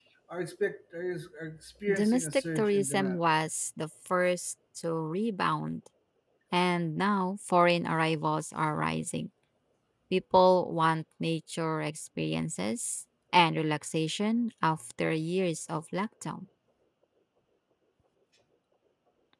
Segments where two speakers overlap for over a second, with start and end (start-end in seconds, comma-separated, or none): 1.9-3.2